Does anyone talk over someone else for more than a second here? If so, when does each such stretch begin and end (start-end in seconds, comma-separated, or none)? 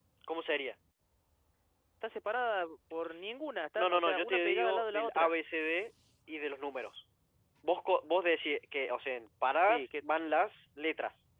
3.8-5.3